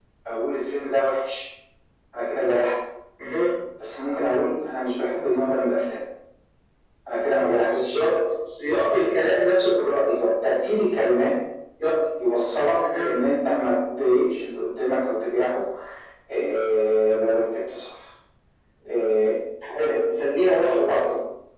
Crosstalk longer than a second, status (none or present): none